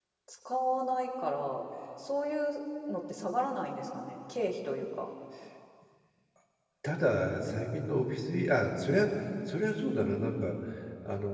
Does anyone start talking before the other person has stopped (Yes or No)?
No